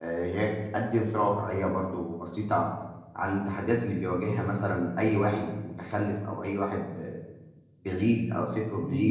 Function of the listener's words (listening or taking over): listening